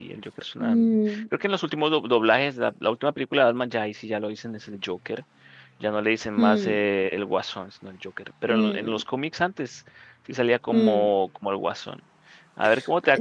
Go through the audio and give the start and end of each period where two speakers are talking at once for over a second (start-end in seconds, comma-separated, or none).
none